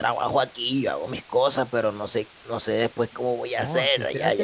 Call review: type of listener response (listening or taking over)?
taking over